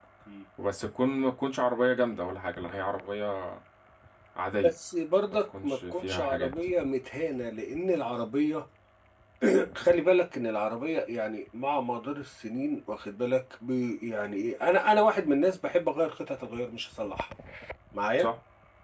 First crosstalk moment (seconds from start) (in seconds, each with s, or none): 5.3 s